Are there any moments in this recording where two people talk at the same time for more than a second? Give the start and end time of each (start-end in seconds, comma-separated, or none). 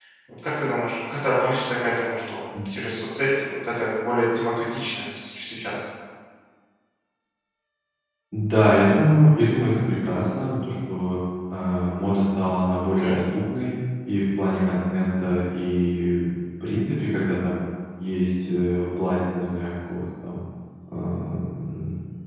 none